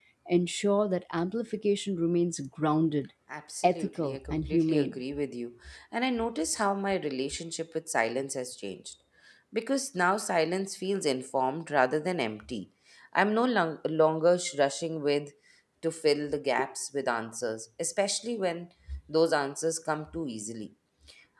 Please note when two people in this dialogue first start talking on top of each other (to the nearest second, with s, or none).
4 s